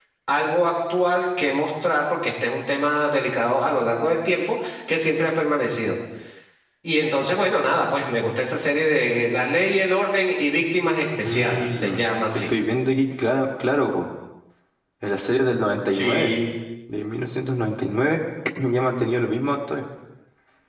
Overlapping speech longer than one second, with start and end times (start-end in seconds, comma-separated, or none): 11.2-12.5